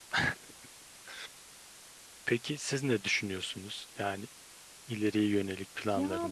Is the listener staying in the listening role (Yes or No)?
No